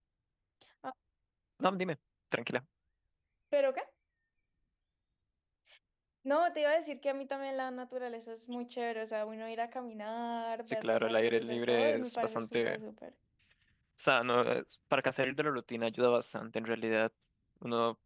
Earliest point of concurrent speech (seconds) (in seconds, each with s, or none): 10.7 s